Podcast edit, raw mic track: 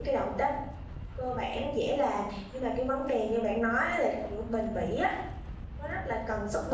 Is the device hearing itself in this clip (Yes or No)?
No